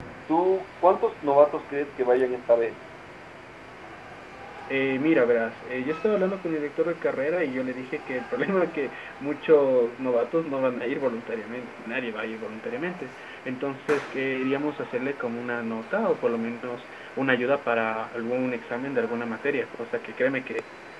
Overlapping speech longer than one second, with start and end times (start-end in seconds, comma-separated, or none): none